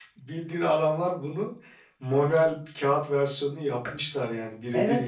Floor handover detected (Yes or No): Yes